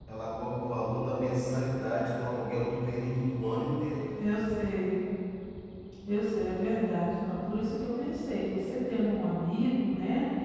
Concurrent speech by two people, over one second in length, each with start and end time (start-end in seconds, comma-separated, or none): none